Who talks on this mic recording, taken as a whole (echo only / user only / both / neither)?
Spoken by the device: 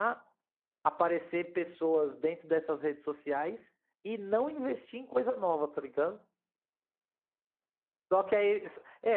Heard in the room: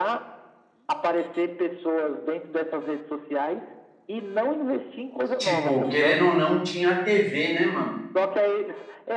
both